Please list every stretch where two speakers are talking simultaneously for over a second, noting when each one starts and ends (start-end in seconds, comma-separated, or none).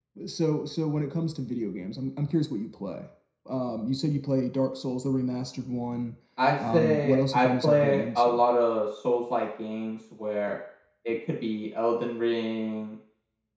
6.7-8.4